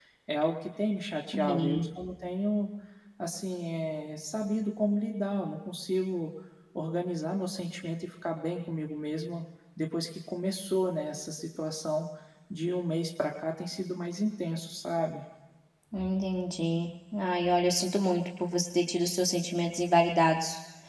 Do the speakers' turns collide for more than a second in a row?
No

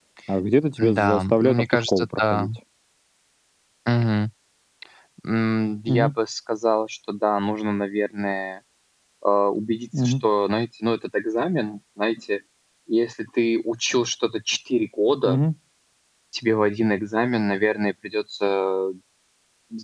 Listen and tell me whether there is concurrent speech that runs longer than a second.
Yes, from 0.8 s

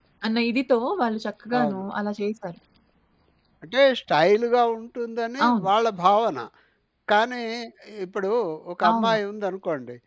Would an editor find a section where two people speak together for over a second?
No

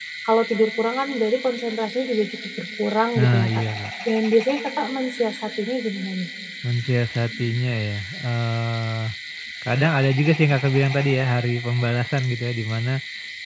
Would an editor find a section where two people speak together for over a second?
No

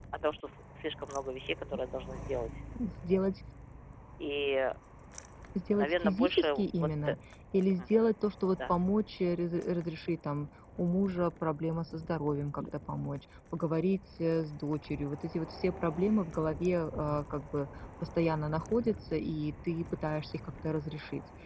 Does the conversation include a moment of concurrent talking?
Yes, from 5.8 s

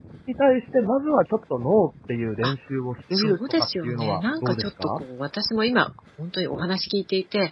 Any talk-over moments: Yes, from 3.1 s

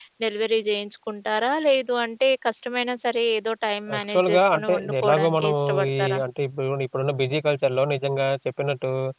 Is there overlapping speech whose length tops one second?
Yes, from 3.9 s

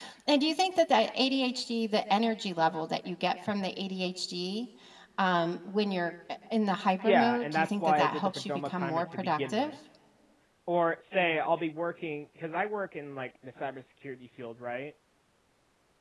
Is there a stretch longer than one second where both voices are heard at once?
Yes, from 7.0 s

